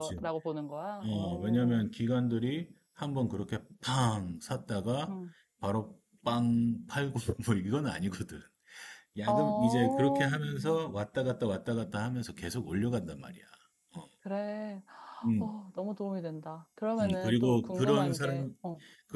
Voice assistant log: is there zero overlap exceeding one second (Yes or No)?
No